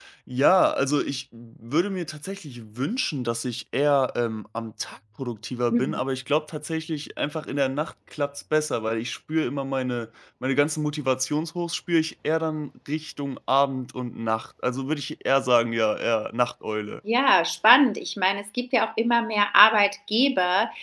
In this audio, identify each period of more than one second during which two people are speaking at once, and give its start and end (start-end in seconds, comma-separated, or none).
none